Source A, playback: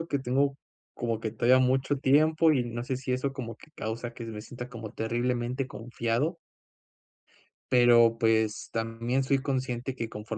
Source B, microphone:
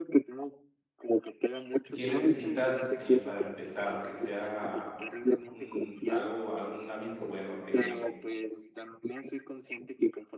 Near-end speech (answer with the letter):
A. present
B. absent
A